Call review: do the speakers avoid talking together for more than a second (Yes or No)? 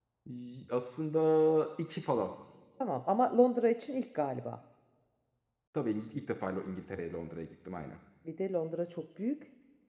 Yes